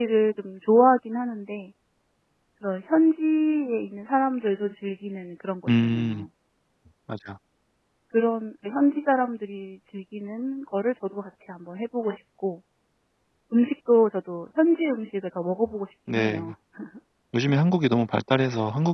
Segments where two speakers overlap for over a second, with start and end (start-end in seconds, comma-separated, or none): none